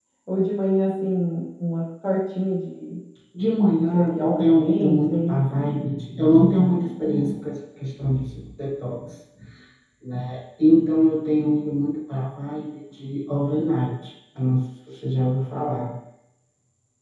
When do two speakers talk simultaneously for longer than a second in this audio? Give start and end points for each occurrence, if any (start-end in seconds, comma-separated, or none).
3.8-5.4